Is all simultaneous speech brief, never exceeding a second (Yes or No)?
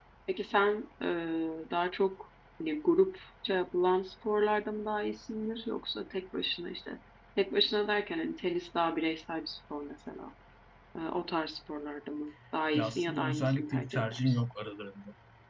No